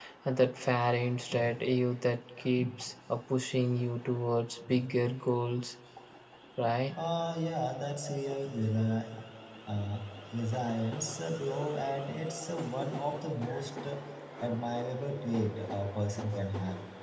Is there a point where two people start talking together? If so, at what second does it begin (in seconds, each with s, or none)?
none